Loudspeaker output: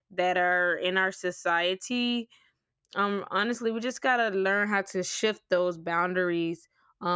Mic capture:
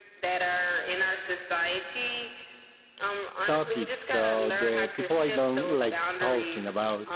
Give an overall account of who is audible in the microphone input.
both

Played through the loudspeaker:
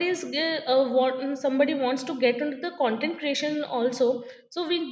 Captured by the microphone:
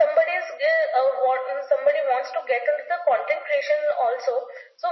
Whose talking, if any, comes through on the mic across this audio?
echo only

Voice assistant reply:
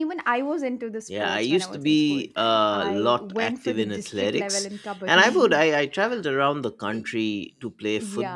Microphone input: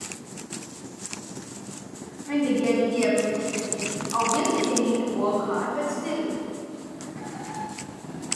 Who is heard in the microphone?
user only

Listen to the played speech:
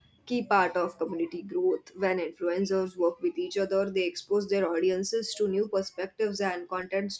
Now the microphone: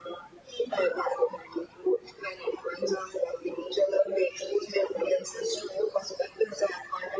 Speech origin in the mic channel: echo only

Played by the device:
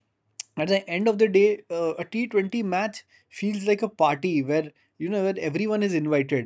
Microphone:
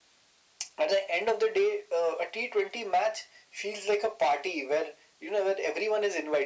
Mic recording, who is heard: echo only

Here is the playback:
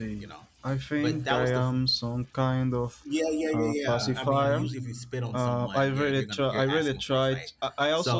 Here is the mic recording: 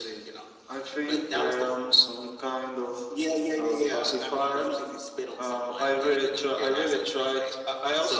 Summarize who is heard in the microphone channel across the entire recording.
echo only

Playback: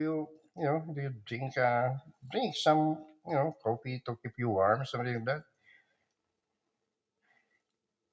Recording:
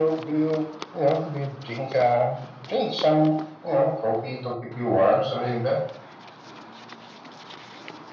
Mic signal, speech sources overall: echo only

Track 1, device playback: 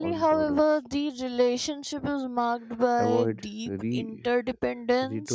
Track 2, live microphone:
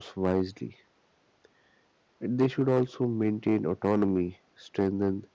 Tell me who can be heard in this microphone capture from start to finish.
user only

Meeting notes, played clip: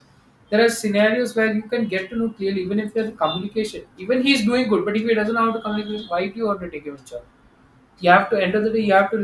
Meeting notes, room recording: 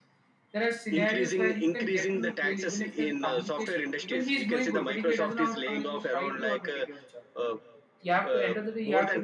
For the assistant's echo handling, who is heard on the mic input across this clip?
both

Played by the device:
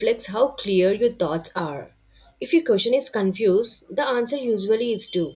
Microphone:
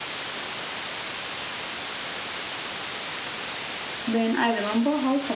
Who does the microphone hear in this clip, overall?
user only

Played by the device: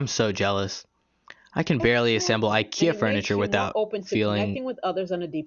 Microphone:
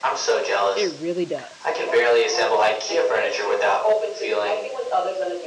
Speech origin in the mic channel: both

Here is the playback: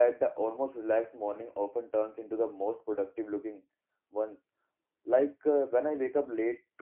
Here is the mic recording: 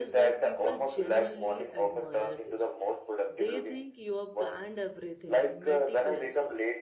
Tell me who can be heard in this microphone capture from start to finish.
both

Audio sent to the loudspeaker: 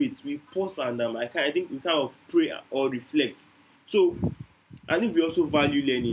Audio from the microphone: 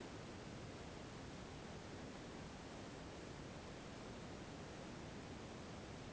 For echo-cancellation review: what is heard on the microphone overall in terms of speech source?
neither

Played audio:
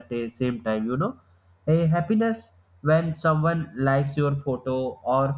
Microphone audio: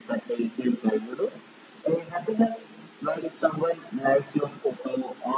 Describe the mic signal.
echo only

